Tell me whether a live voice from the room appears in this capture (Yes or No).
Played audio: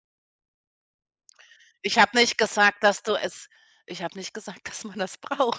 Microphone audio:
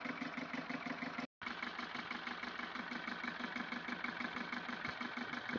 No